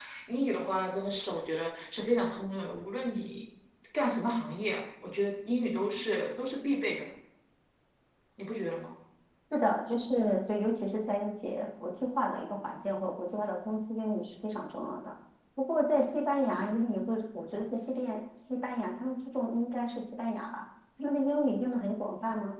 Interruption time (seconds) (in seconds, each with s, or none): none